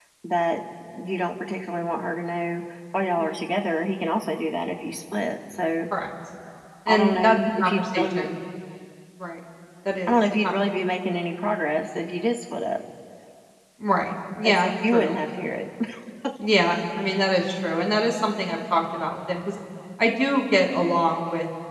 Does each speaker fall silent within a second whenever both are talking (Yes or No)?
No